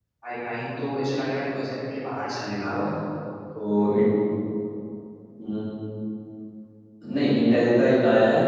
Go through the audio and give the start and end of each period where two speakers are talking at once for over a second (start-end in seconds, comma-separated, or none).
none